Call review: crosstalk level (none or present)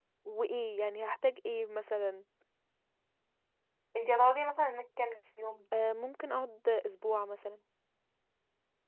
none